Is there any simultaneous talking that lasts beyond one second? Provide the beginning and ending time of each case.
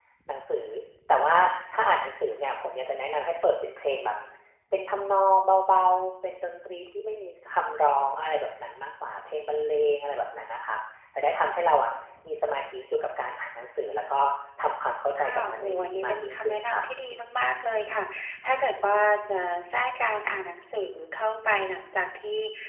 15.2-16.8

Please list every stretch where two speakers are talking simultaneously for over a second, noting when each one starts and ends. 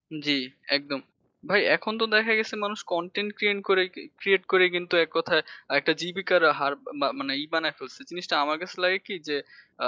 none

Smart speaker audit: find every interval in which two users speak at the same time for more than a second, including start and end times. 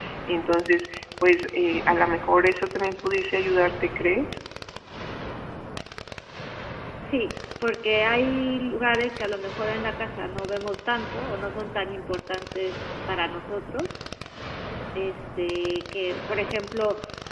none

